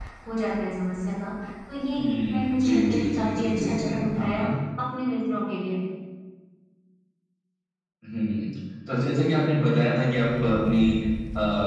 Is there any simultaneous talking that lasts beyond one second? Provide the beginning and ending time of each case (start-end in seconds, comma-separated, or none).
2.0-4.5